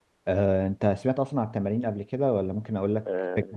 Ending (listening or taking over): taking over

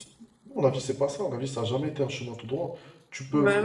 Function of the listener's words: listening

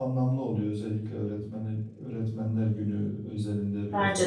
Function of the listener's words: listening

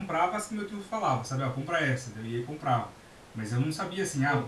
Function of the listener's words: listening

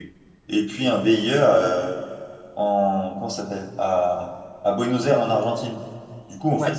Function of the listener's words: listening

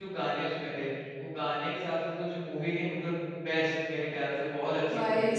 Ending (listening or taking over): taking over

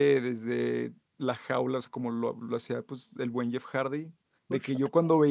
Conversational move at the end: listening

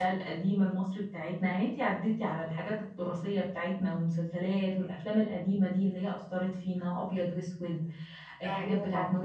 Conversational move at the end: listening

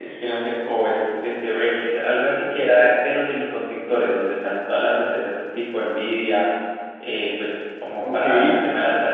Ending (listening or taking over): listening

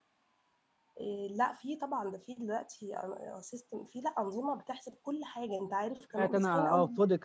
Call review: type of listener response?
taking over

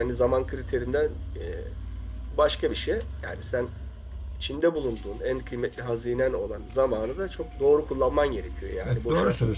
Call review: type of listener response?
taking over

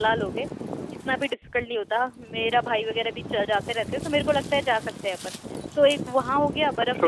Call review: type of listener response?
taking over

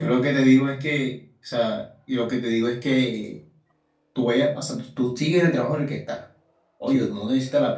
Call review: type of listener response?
listening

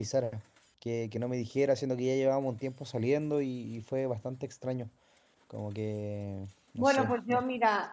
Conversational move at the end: taking over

